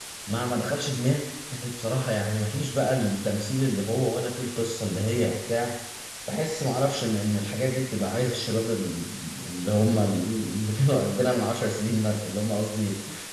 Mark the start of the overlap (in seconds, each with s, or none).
none